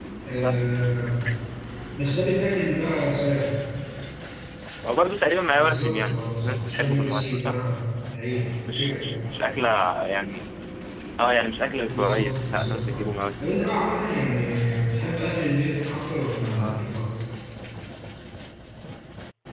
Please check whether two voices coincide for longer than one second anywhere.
Yes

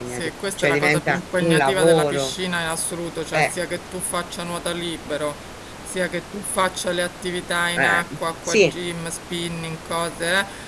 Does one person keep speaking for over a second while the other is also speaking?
Yes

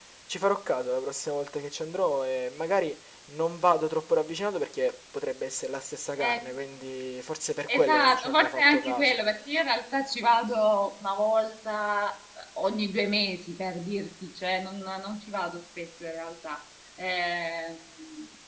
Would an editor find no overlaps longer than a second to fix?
No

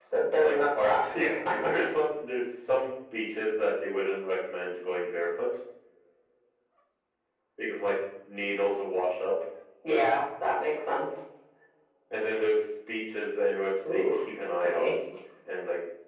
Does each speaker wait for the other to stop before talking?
No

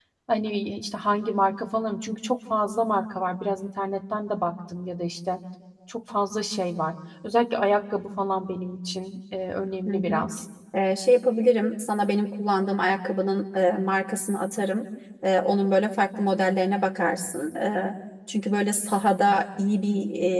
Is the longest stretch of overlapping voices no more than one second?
Yes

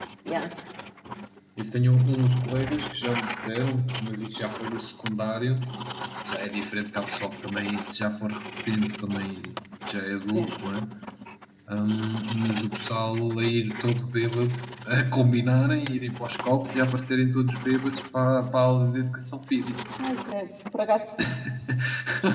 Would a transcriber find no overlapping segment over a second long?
Yes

